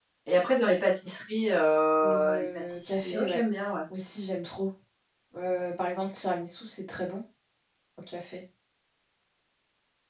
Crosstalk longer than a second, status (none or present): present